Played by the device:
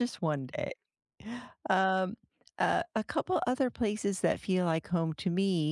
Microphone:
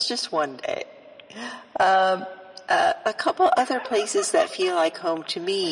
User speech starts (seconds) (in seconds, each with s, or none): none